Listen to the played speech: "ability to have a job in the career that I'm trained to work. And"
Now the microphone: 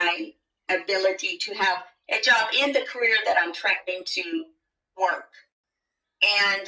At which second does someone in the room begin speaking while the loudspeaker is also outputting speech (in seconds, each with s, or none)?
none